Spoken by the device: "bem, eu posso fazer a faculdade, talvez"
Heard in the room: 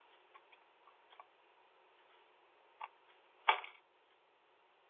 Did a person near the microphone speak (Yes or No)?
No